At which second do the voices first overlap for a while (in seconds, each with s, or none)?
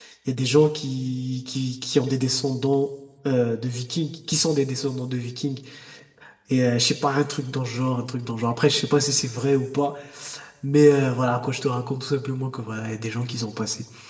none